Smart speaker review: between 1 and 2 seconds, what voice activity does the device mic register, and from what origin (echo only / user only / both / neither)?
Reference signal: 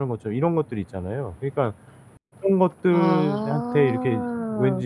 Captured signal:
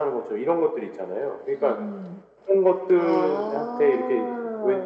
both